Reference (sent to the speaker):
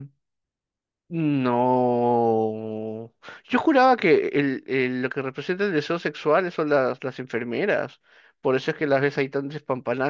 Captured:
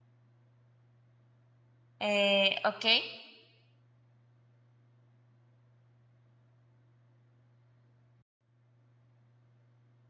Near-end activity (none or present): present